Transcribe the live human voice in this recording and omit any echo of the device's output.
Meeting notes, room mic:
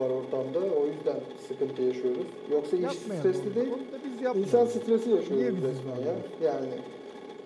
Yapmayalım onu da. Onu da biz yapmayalım ya. Niye bizi zorluyorsun?

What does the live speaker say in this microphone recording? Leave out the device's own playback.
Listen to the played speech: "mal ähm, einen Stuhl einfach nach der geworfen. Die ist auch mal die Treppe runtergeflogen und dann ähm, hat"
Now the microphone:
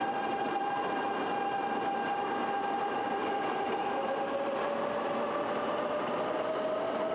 none

